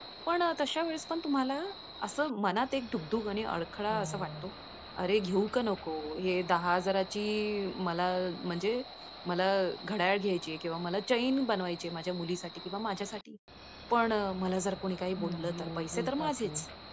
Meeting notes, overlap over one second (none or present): present